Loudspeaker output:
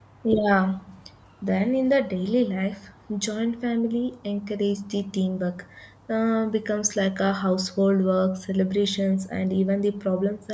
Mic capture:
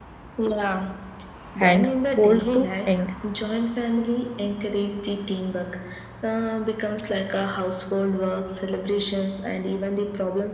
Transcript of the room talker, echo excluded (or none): and old to young